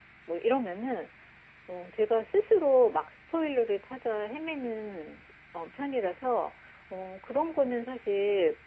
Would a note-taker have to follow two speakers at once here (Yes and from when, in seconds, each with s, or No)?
No